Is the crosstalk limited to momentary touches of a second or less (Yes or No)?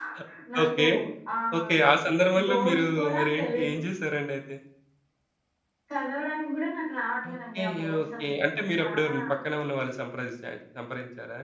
No